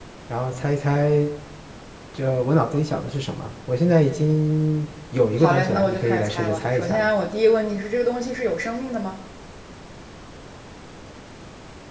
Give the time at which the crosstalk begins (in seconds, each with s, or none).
5.4 s